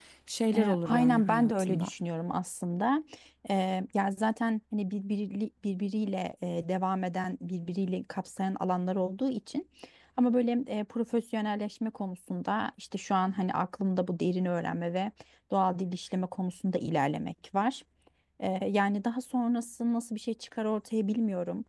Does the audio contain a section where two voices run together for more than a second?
Yes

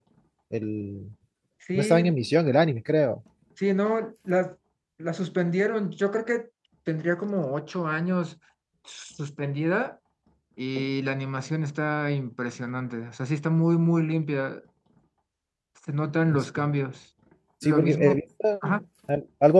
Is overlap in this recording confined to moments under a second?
Yes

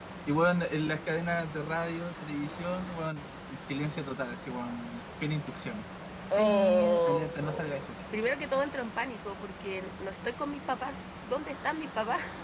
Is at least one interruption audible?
Yes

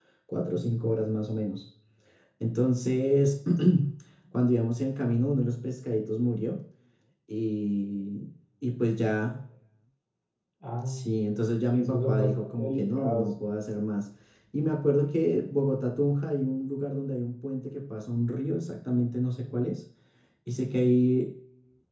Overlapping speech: Yes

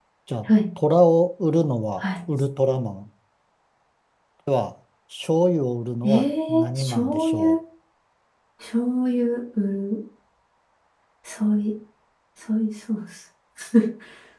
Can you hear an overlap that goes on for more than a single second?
Yes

